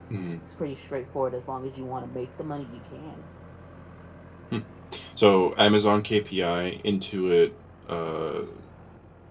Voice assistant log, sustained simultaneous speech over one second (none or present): none